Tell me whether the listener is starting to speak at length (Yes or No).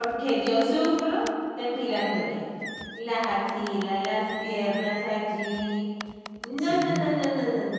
No